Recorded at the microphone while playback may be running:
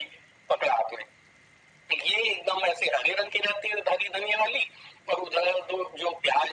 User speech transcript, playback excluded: none

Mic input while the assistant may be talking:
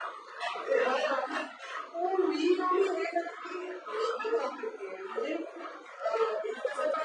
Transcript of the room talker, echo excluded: none

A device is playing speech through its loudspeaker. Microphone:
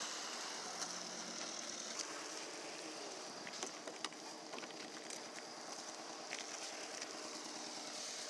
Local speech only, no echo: none

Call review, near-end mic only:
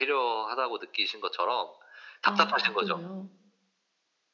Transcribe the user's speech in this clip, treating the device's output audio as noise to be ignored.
아 밖으로요?

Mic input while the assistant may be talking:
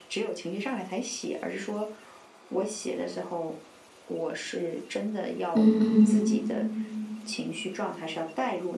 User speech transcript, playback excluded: 嗯，嗯。

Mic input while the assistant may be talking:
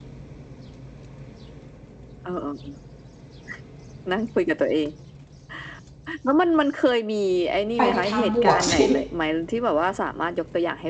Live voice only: ไปในทางบวก สิ

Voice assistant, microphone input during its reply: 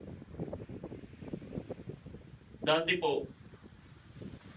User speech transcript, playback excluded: Dati po

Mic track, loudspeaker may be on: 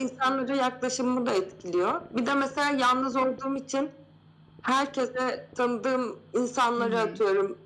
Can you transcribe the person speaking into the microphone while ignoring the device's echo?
Hı hı.

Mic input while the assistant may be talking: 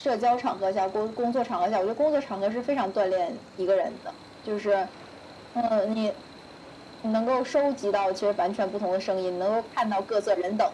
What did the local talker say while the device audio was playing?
none

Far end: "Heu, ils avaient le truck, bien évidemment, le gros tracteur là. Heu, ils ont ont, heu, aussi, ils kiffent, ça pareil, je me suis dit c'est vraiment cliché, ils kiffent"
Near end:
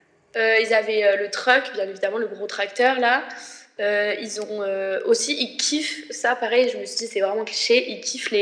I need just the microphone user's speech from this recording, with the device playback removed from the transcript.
none

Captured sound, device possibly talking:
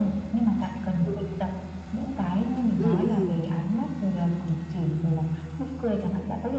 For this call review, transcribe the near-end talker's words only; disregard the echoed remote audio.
Ừm, ừm.

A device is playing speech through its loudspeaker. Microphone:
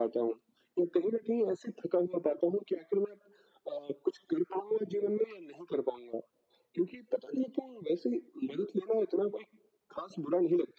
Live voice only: none

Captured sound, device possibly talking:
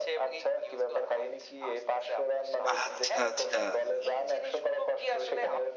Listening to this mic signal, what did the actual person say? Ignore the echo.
আচ্ছা, আচ্ছা।

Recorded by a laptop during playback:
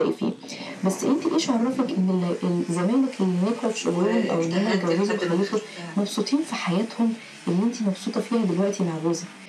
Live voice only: واجتهدت لحد ما دخلتها،

